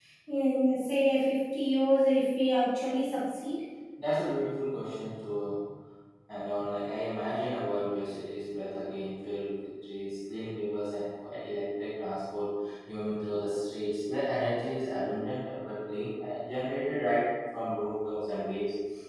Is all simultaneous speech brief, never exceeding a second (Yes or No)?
Yes